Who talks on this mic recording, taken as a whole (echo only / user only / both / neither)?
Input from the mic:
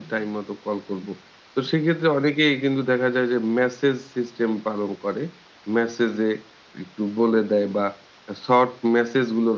user only